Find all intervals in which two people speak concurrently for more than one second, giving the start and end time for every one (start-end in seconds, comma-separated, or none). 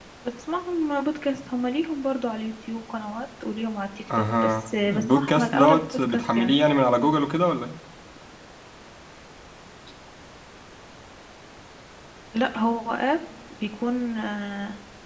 4.2-6.5